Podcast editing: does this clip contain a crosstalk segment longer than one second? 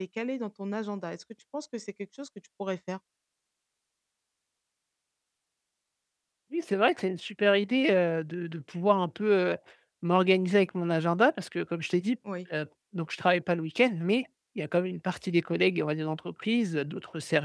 No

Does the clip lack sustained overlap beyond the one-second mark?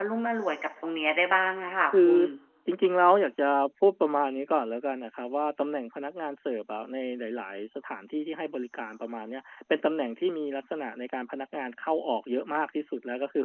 Yes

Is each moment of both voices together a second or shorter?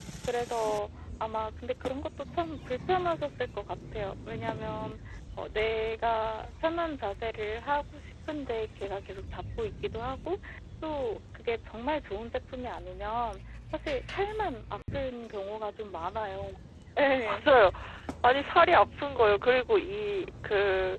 Yes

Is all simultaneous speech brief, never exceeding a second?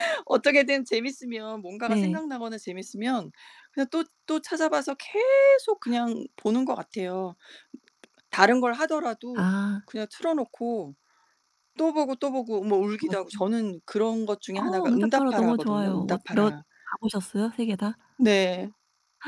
No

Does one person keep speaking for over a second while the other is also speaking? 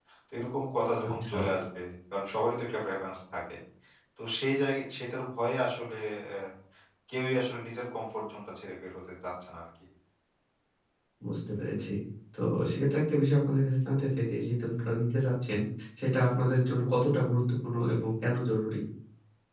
No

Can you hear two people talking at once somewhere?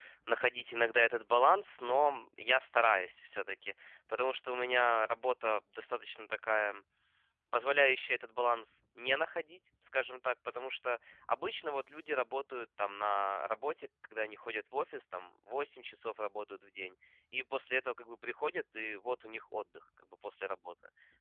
No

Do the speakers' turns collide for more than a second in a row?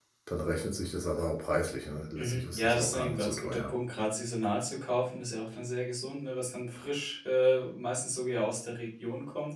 Yes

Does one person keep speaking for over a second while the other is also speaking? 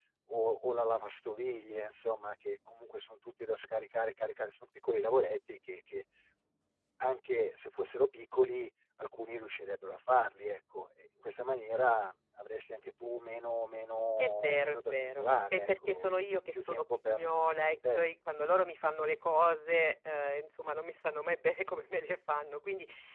Yes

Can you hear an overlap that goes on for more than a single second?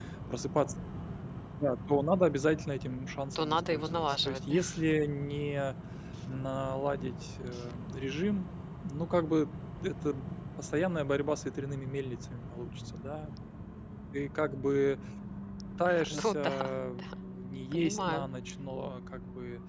Yes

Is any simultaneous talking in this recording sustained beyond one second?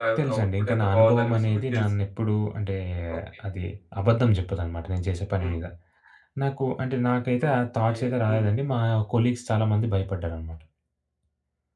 Yes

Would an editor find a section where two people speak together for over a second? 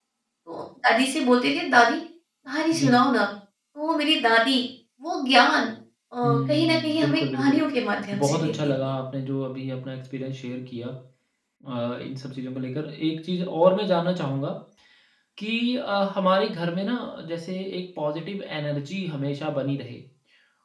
Yes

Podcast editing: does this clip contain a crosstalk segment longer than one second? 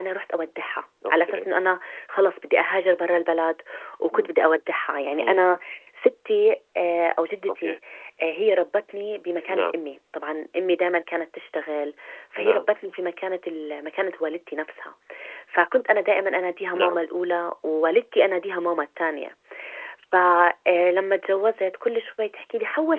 No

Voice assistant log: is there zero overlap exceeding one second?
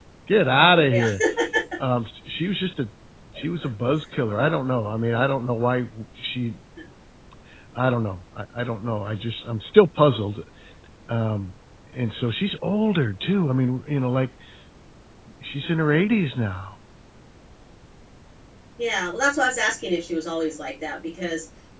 Yes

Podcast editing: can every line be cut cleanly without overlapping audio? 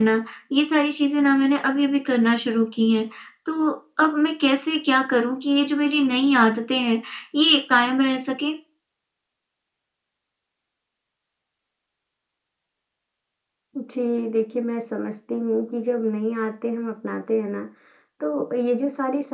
Yes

